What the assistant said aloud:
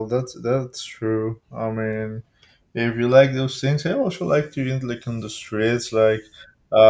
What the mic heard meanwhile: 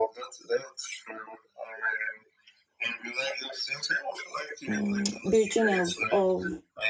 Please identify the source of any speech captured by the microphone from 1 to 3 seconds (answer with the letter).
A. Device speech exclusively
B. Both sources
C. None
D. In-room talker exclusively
A